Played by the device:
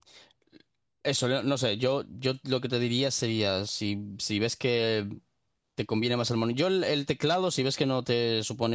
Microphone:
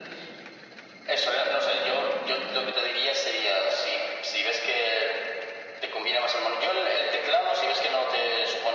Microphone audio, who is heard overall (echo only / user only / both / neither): echo only